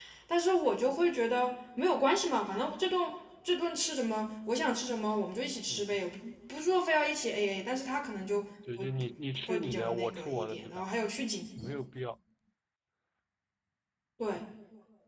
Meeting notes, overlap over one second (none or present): present